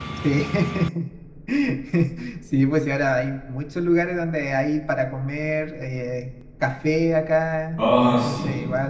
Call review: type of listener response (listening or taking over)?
listening